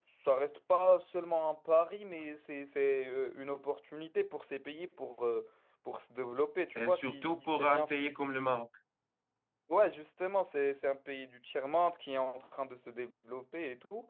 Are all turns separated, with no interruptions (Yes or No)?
No